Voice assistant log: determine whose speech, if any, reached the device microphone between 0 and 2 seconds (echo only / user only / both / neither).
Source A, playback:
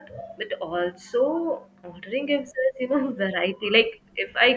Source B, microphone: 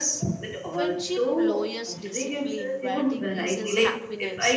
both